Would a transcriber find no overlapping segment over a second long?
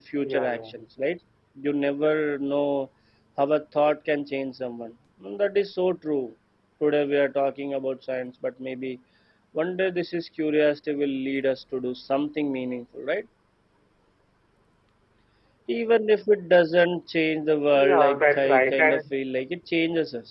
No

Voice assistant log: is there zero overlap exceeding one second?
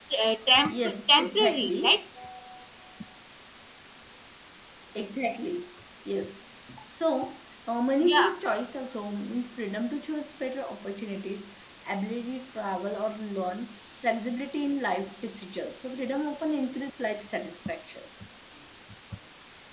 No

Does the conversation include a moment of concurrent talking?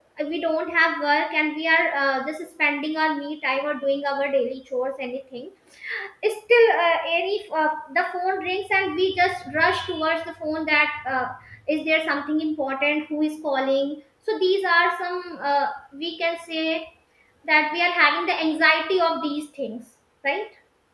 No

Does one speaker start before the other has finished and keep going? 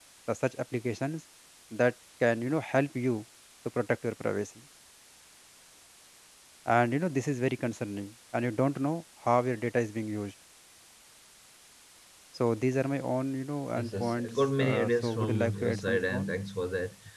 Yes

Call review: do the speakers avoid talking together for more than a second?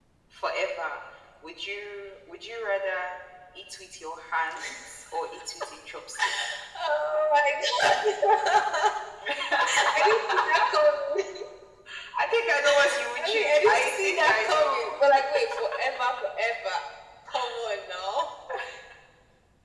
No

